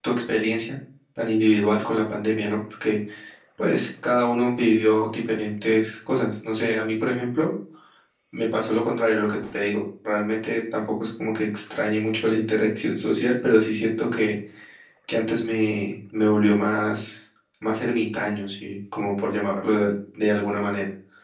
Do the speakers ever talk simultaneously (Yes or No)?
No